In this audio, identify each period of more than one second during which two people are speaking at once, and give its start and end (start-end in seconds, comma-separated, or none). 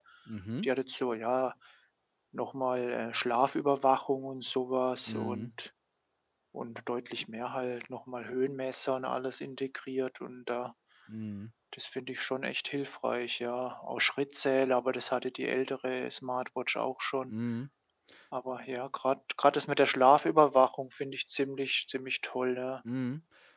none